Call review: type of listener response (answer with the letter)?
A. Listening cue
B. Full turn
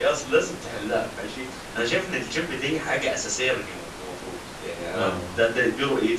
A